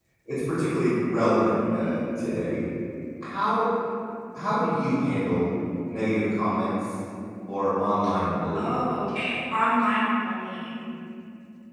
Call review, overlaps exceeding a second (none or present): none